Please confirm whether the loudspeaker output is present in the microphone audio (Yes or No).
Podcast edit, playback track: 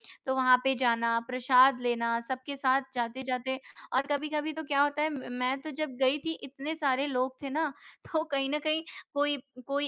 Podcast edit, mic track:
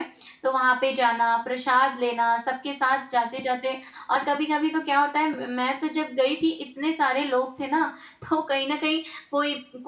Yes